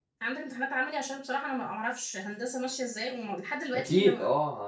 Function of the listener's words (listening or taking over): taking over